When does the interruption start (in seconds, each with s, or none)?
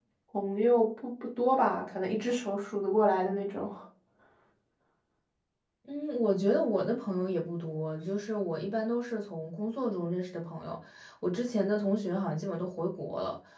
none